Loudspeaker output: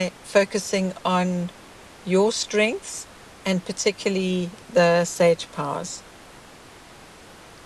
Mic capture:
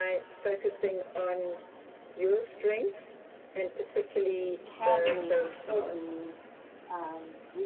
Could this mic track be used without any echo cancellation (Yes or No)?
No